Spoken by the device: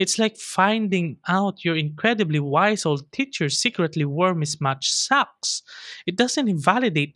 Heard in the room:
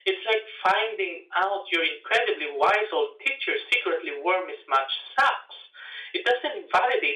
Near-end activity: none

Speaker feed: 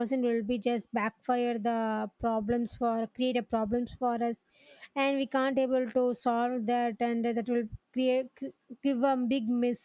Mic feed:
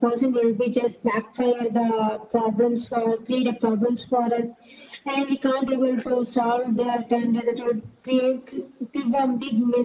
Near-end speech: none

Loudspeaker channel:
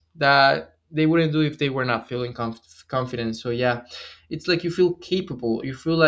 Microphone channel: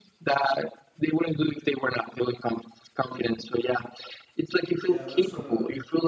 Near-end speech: present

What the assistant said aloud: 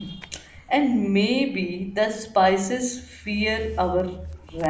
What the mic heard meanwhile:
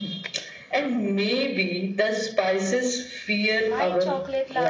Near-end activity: present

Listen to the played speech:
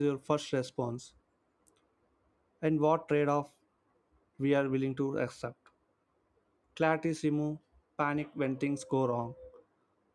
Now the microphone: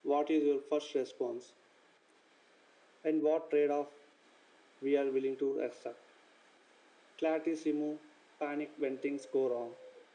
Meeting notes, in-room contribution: none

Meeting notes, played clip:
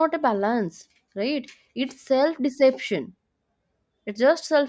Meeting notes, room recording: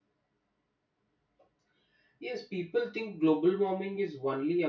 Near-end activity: present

